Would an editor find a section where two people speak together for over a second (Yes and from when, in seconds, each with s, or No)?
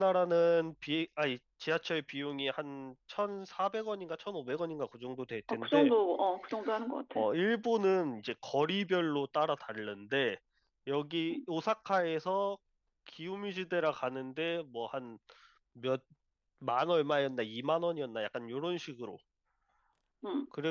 No